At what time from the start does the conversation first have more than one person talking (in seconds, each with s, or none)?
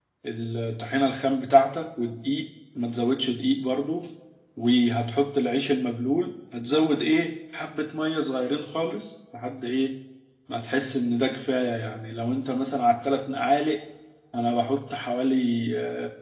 none